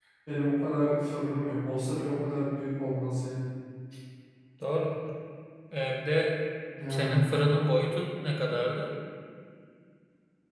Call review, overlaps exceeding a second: none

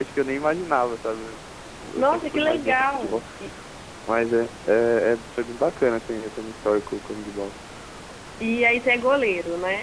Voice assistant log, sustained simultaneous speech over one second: present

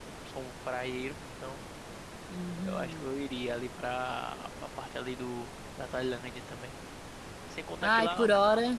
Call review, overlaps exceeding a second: none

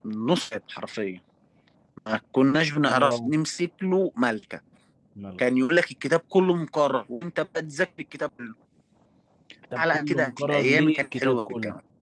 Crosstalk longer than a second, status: present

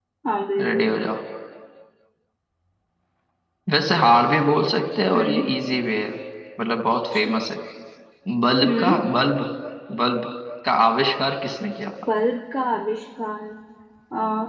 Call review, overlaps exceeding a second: none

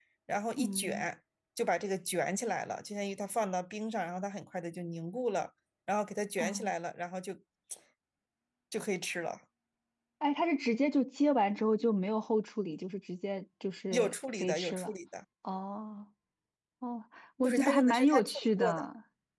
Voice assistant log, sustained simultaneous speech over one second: present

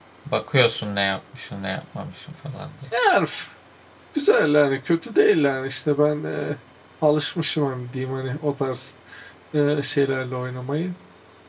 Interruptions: none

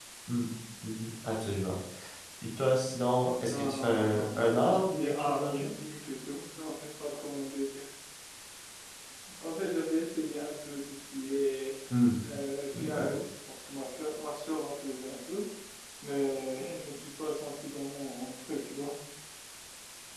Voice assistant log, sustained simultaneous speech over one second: present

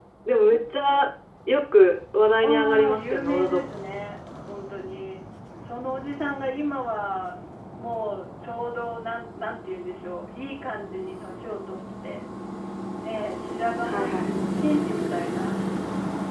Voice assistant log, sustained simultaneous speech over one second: present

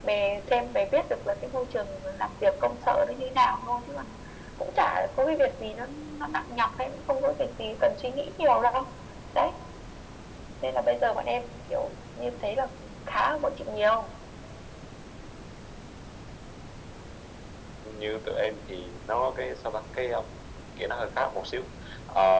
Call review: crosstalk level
none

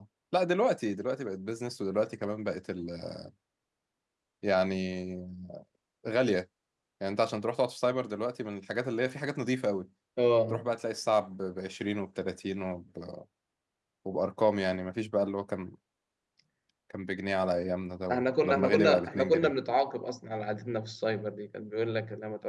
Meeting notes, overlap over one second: present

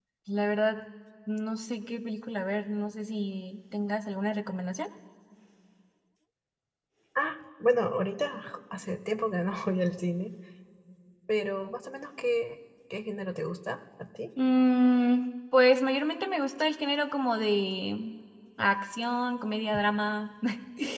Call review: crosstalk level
none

